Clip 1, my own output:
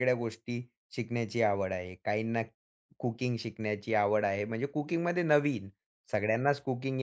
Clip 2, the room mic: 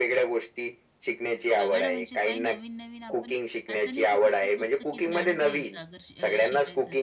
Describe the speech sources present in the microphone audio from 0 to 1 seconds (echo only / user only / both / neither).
echo only